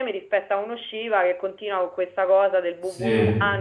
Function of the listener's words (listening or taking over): listening